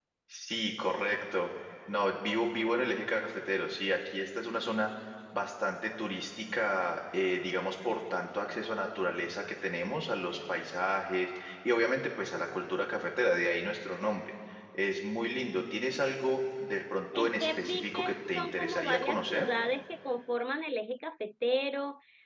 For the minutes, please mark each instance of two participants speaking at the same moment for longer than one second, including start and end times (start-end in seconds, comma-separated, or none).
17.2-19.5